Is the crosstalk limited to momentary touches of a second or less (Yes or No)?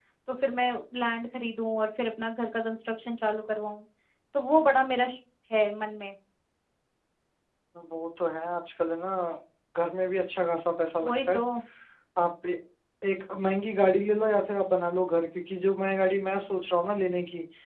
Yes